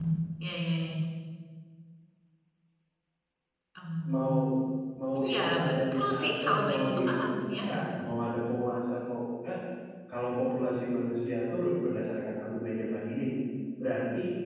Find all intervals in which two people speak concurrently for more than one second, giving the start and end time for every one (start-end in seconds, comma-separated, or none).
5.2-7.5